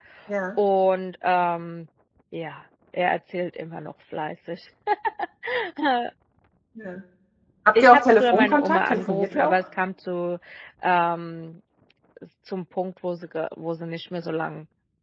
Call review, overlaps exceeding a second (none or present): present